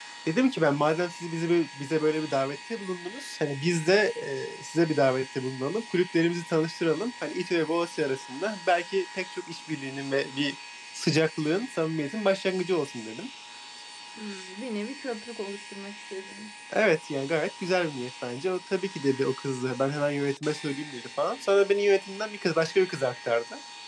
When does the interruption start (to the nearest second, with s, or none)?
none